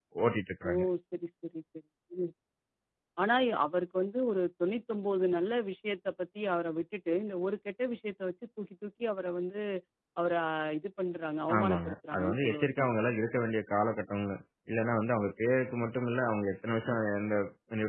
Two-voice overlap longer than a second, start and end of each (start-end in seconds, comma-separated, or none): 11.6-12.9